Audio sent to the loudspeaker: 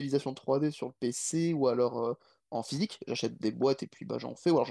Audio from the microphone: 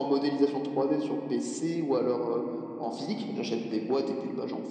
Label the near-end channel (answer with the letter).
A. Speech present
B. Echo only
B